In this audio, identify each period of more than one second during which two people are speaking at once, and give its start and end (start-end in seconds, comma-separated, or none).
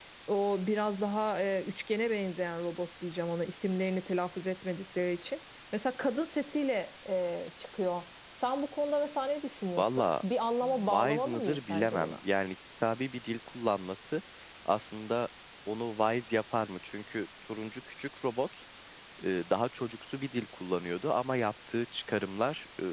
10.6-12.2